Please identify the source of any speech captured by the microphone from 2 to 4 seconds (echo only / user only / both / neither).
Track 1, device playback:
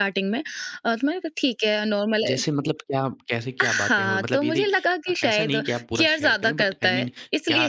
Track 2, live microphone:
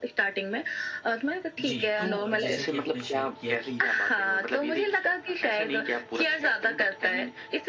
both